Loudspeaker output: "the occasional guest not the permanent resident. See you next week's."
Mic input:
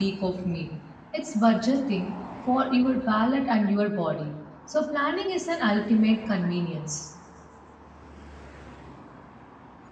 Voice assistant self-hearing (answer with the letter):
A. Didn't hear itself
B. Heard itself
A